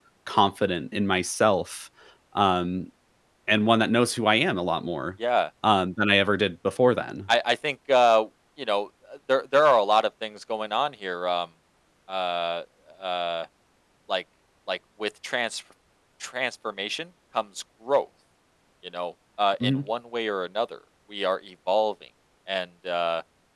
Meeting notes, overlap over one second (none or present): none